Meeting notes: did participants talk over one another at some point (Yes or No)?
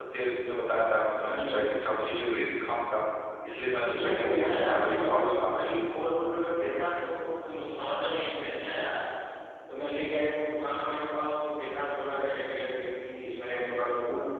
Yes